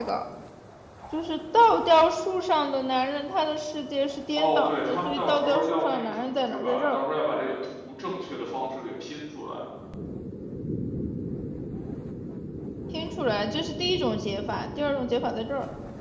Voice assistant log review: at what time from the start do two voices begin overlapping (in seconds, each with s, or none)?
4.4 s